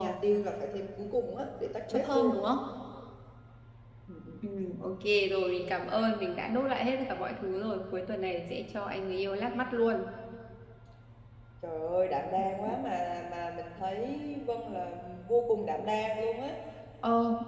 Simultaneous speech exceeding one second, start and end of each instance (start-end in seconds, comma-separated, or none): none